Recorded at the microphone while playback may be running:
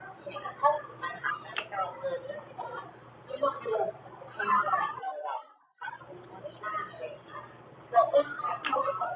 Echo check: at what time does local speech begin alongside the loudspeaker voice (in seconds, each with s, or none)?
none